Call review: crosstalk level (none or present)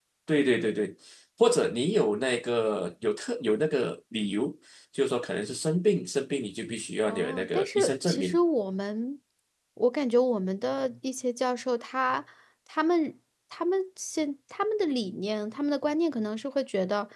present